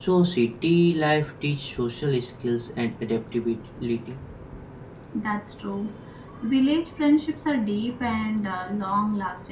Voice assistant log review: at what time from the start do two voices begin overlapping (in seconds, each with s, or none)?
none